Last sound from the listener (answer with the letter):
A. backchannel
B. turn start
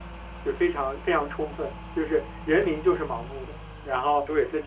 A